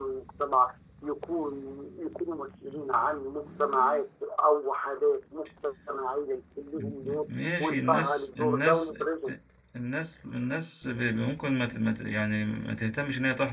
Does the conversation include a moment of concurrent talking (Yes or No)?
Yes